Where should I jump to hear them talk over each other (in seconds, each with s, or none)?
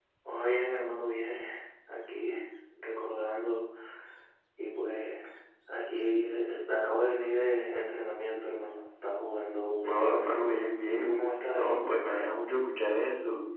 9.8 s